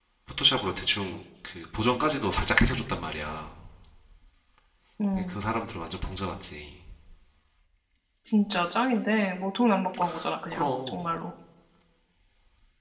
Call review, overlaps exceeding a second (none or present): none